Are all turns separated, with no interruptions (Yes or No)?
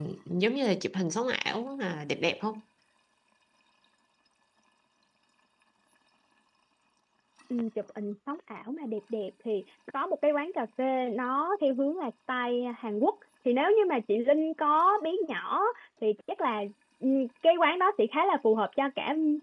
Yes